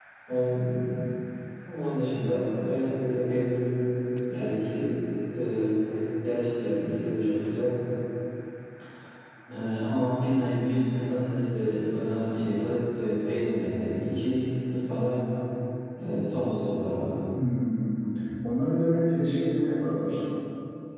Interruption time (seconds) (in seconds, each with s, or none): none